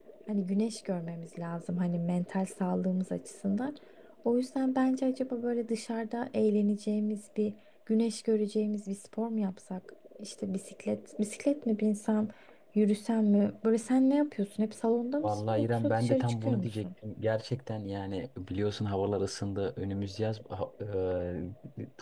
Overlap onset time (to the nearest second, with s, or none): 15 s